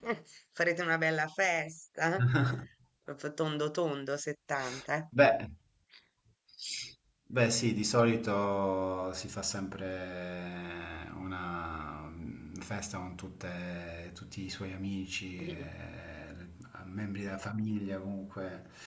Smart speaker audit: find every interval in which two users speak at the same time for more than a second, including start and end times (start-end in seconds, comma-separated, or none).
none